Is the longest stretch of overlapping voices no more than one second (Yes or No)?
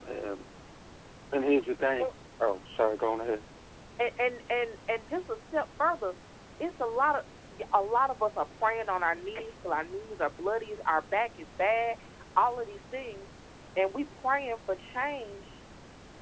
Yes